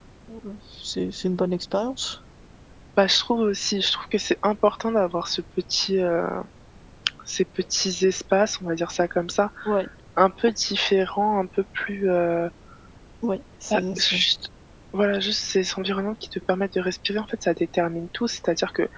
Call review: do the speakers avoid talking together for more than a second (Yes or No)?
Yes